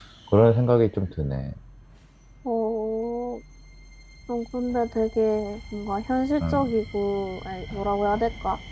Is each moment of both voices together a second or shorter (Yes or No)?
Yes